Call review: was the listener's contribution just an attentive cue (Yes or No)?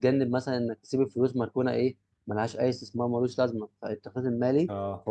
Yes